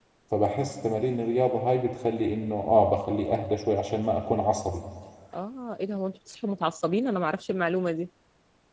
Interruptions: none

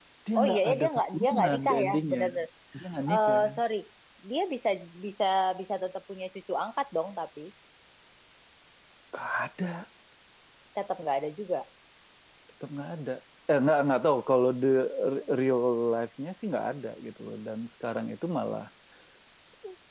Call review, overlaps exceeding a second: present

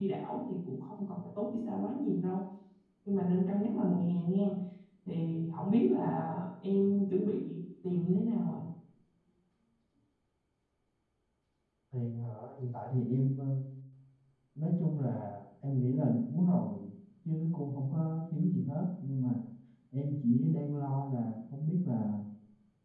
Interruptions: none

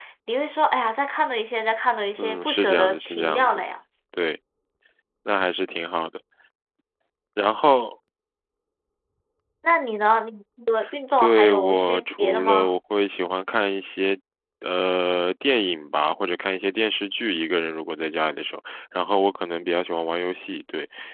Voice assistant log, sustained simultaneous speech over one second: present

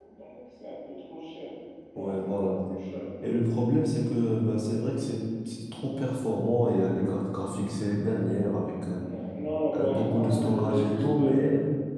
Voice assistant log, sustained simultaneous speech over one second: present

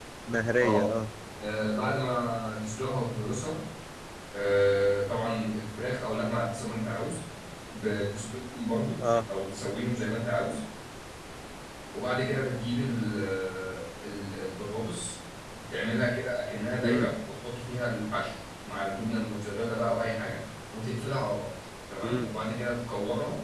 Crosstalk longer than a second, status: none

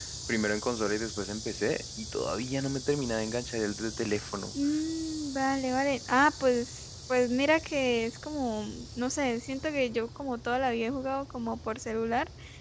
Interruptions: none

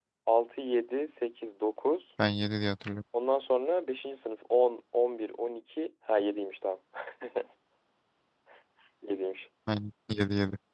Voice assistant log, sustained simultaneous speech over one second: none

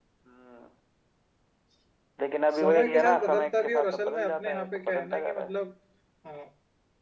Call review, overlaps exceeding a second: present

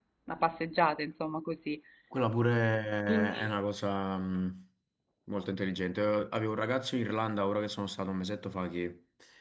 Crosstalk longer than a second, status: none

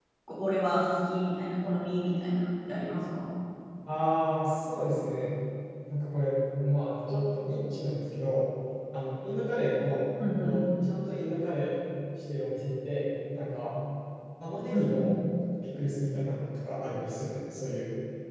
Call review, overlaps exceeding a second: none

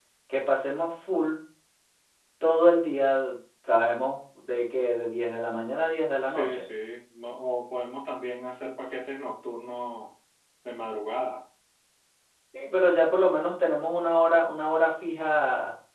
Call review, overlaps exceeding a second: none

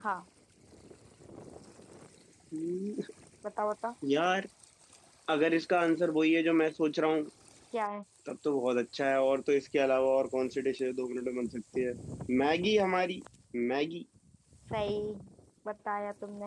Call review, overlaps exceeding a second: none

